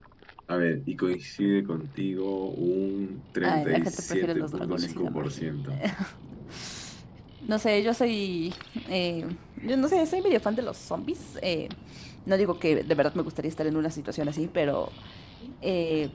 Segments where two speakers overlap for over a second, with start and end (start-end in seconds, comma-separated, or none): 3.4-5.4